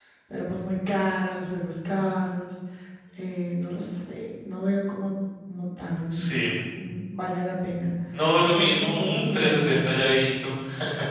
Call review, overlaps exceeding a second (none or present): present